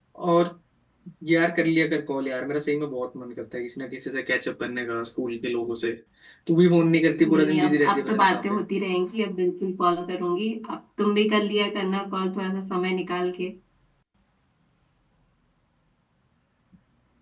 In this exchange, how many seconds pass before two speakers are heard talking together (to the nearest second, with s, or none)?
7 s